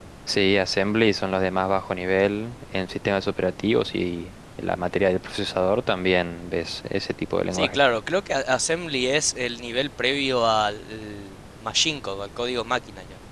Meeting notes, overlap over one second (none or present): none